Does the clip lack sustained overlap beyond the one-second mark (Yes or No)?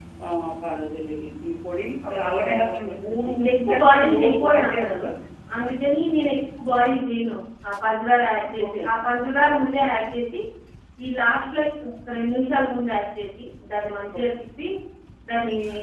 No